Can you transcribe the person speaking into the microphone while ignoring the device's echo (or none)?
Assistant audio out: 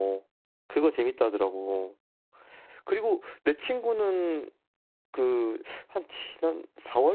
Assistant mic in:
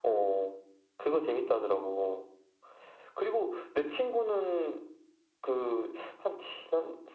none